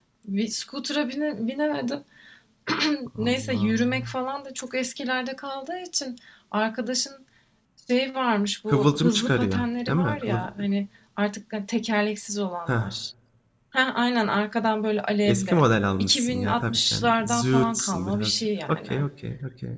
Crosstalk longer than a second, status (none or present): present